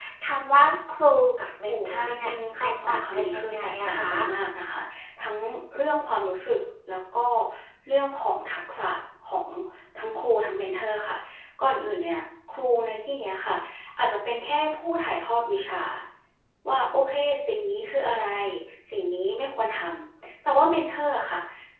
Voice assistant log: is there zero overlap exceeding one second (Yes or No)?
No